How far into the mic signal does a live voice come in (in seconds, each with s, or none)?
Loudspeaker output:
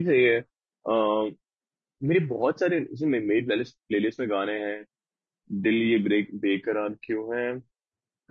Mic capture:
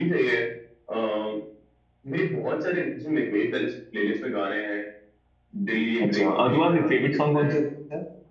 6.1 s